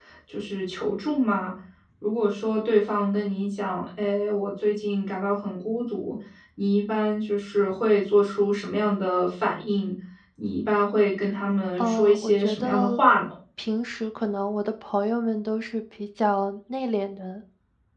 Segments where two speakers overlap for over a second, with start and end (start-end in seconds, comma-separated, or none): 11.8-13.0